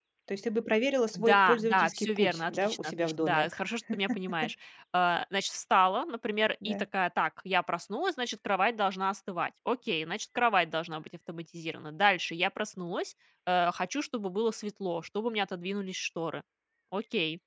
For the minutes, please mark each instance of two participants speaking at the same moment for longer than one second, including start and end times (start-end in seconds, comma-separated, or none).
1.1-3.5